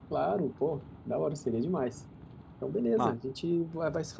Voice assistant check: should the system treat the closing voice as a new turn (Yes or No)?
No